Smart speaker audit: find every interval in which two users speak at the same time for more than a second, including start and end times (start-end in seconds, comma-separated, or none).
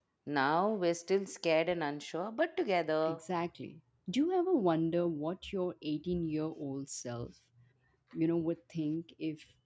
none